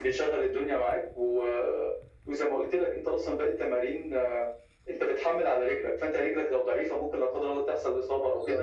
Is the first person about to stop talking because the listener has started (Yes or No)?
No